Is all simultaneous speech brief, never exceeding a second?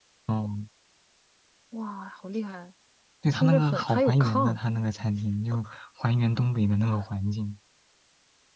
No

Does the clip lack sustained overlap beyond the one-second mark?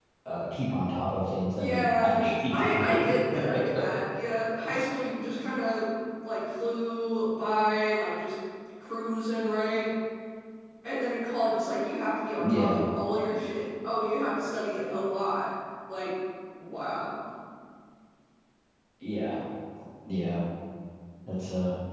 No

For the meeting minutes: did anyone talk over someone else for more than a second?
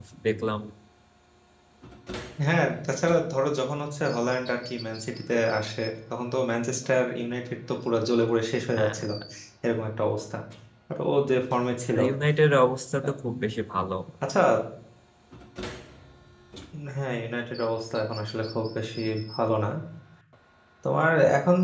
No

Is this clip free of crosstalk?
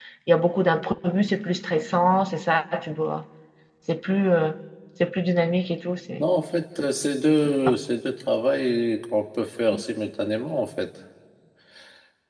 Yes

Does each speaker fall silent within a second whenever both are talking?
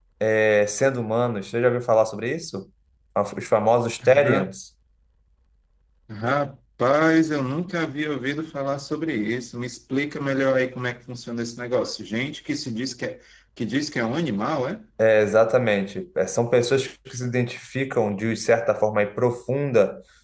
Yes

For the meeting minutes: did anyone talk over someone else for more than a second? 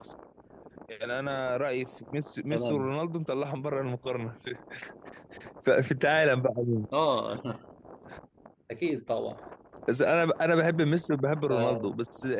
No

